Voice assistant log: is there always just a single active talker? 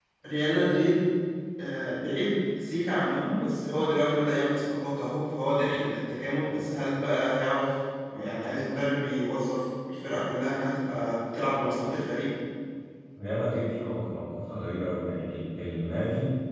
Yes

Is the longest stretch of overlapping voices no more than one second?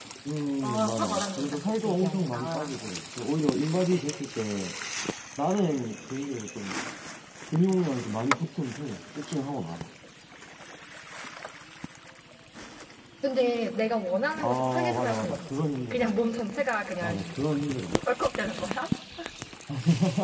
No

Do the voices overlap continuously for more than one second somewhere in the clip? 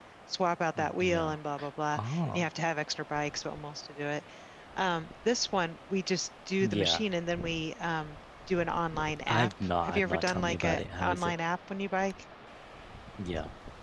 Yes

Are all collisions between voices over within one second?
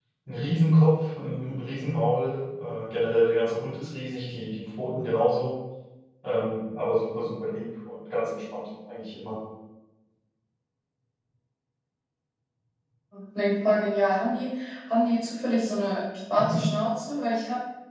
Yes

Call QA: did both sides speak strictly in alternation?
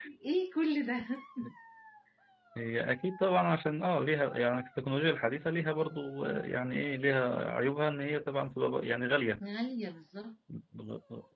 Yes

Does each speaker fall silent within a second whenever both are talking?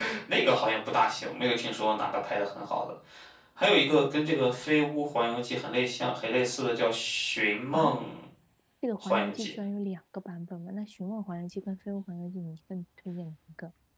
Yes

